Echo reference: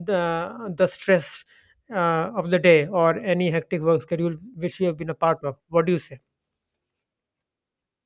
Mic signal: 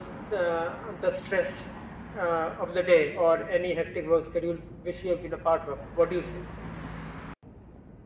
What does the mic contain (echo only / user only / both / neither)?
echo only